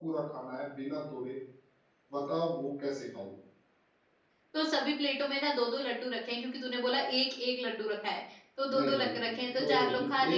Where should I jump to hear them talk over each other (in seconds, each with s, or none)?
8.7 s